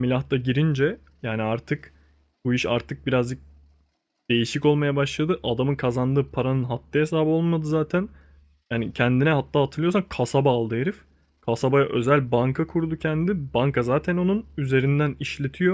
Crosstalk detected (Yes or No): No